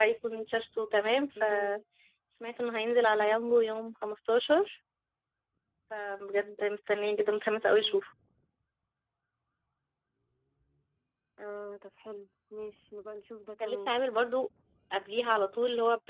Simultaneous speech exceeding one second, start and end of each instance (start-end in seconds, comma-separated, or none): none